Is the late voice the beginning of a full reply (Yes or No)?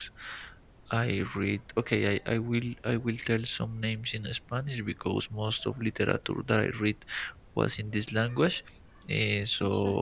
No